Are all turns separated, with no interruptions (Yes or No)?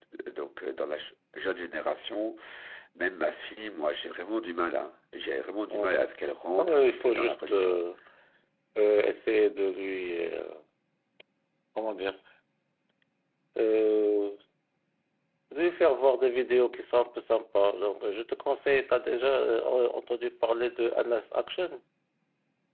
No